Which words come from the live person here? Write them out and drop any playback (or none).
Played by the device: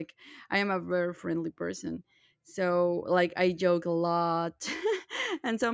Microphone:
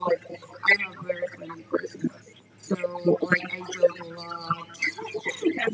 none